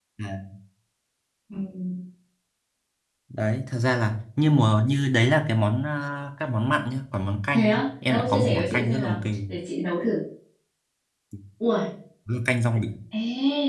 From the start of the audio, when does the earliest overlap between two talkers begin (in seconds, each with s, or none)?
7.5 s